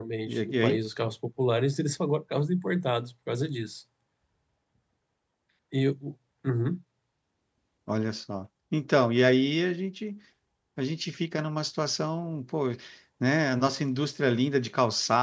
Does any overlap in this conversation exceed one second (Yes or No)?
No